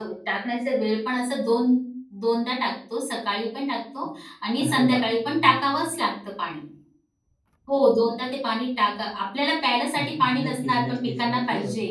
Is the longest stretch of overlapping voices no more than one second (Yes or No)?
No